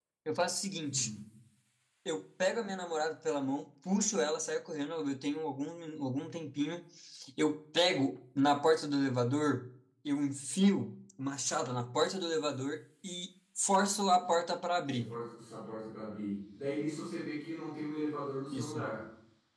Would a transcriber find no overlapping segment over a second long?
Yes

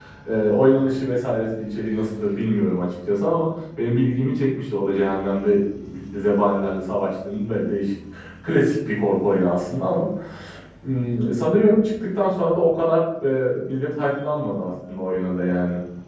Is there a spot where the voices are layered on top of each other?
No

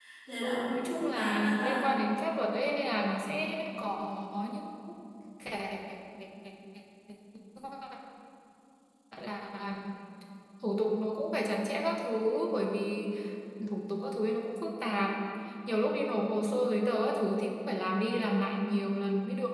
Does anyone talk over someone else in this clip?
Yes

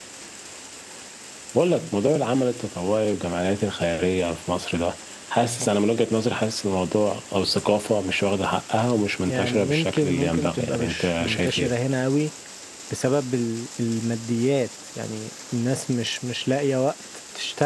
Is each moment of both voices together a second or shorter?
No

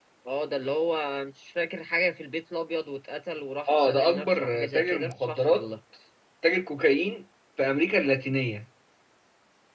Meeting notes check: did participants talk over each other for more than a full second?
Yes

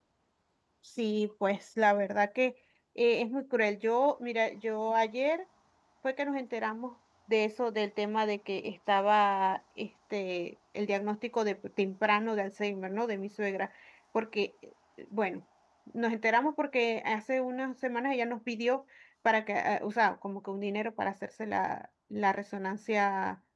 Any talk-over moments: No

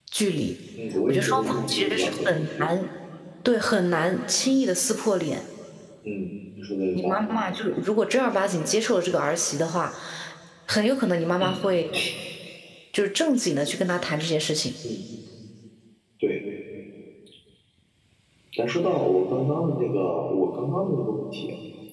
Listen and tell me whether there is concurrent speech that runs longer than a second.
Yes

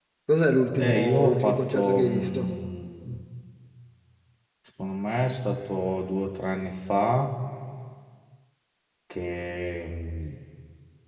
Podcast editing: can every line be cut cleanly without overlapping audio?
No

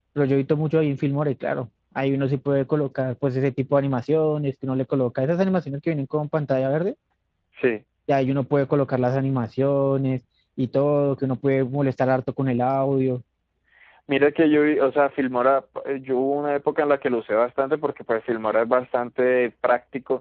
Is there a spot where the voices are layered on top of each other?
No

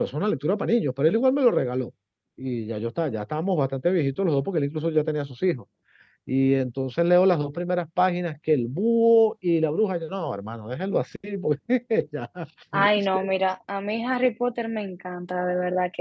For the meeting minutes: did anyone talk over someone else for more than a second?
No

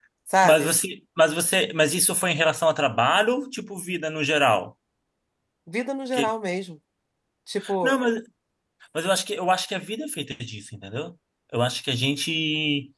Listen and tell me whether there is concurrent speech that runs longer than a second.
No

